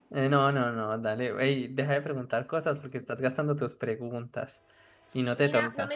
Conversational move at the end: taking over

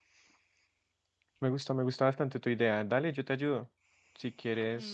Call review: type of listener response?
taking over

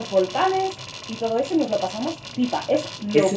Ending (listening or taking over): taking over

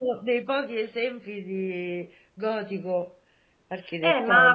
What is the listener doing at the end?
taking over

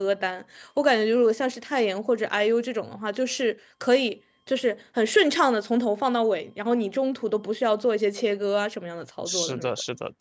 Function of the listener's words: taking over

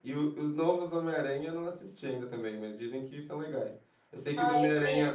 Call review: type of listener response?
listening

